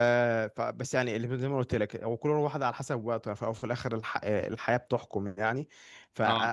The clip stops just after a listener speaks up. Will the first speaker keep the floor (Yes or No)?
Yes